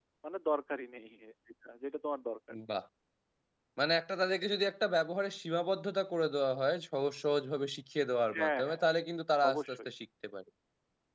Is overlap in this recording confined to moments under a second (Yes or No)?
Yes